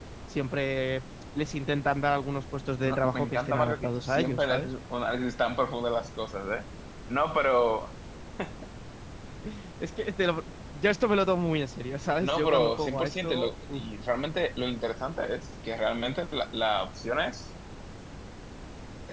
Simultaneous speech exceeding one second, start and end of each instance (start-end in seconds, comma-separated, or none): 2.8-4.7, 12.2-13.8